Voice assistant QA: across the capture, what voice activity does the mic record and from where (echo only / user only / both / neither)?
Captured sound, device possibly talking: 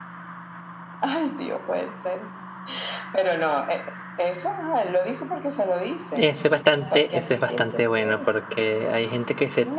both